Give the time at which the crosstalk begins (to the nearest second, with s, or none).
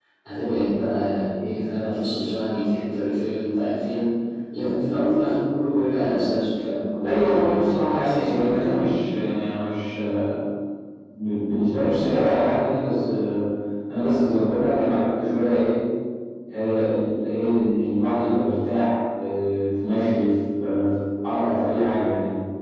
7 s